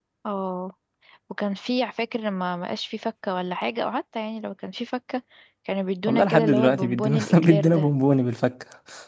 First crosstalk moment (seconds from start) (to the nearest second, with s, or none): 6 s